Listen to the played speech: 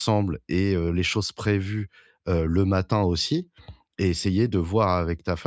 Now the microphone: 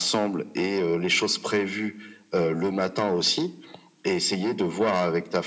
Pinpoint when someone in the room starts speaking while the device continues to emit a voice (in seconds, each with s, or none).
none